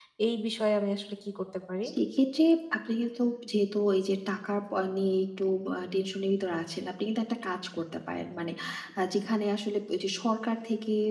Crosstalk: none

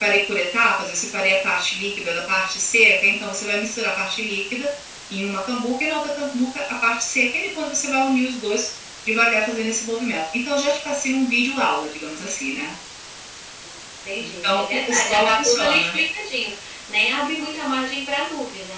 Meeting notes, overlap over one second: present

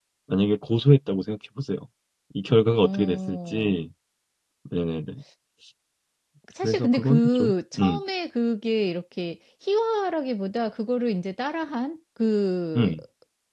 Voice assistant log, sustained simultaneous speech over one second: present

